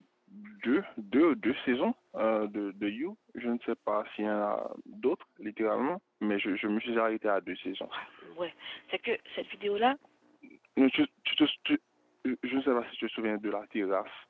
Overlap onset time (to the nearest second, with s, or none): none